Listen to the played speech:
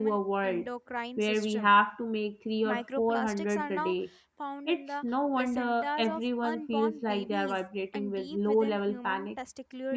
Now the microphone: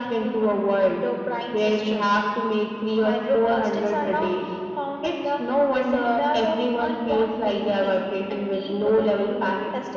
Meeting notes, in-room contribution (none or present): none